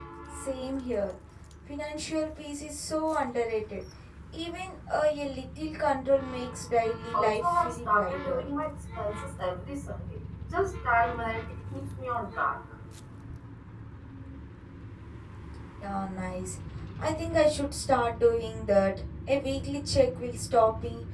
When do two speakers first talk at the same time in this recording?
7 s

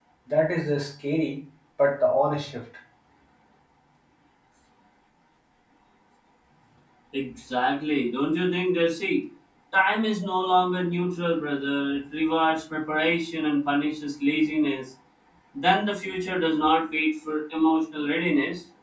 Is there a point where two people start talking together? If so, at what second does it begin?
none

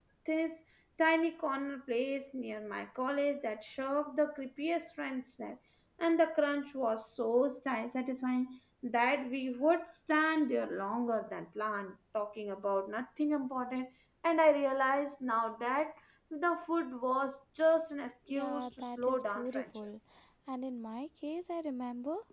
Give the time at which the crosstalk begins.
18 s

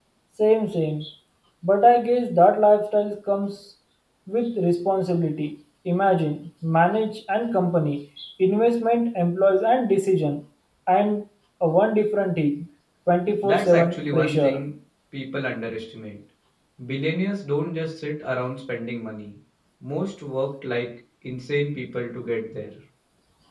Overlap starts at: 13 s

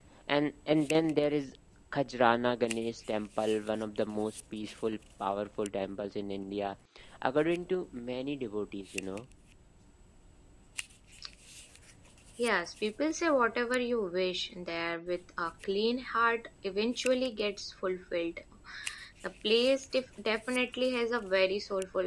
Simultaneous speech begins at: none

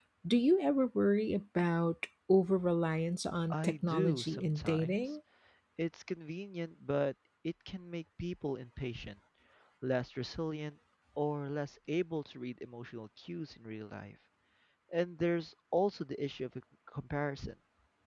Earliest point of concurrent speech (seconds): 4 s

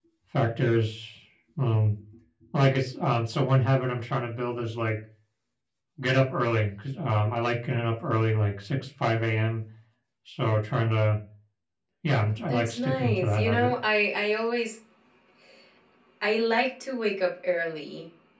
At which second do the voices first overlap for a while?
12 s

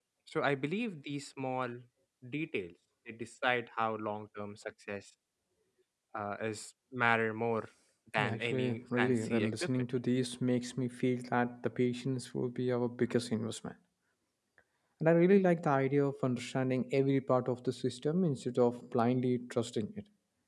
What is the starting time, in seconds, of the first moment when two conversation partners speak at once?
8 s

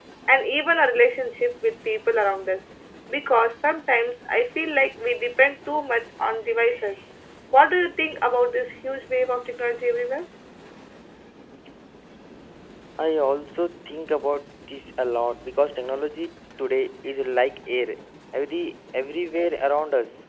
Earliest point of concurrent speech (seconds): none

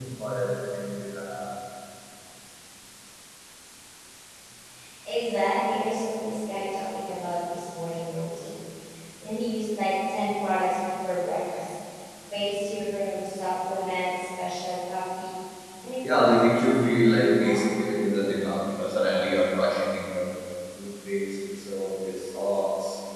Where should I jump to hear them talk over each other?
16 s

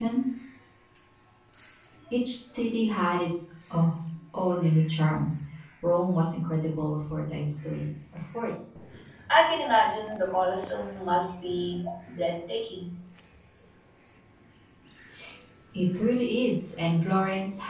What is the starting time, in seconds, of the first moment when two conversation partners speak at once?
none

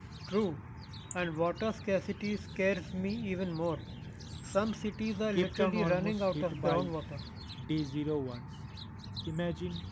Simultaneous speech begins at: 5 s

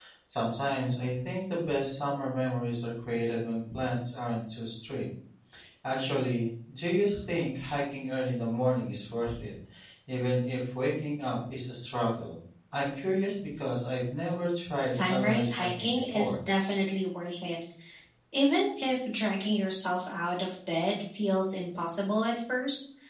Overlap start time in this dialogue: 15 s

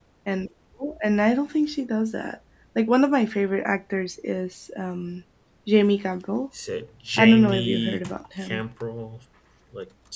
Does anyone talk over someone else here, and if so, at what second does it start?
7 s

